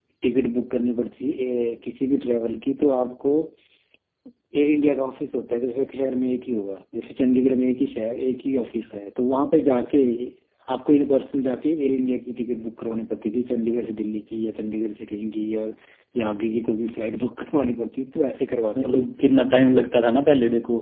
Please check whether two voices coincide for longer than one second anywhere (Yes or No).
No